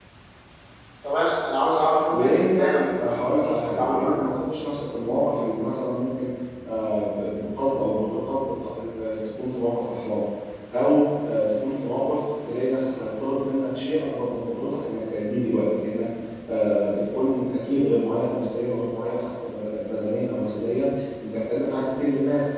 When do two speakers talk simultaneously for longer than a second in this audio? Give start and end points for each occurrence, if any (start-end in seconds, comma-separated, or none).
2.1-4.2